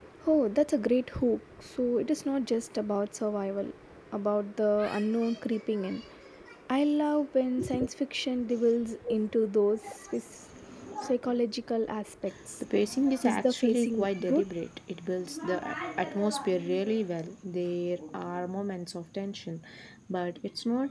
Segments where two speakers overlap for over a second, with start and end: 13.2-14.5

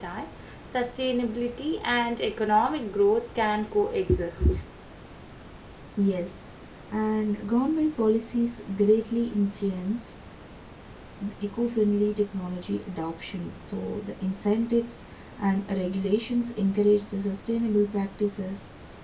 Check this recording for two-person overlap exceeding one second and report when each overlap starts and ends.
none

